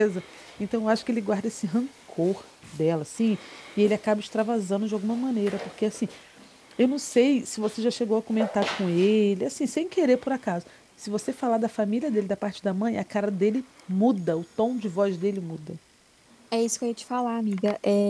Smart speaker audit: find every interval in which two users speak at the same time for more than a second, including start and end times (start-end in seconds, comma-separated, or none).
none